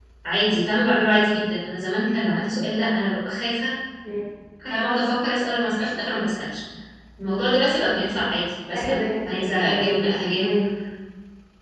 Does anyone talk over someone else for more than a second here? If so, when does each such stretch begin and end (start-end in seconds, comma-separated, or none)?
8.7-10.5